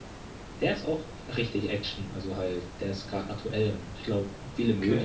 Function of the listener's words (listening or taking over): listening